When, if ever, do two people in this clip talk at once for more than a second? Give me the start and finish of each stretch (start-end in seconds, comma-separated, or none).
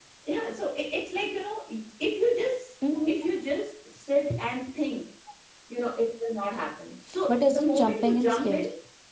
7.3-8.6